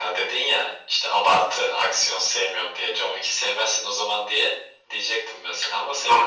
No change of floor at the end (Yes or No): No